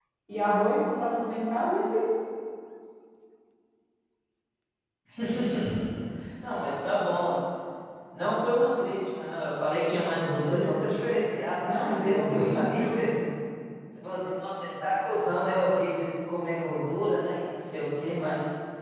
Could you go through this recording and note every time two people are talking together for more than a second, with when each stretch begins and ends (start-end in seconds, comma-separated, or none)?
11.7-13.1